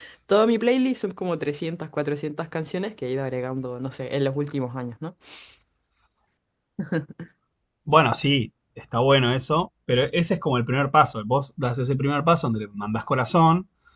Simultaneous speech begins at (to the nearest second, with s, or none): none